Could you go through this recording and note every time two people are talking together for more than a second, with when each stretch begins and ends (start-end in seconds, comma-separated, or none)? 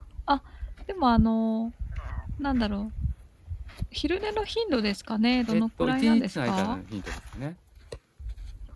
5.5-6.8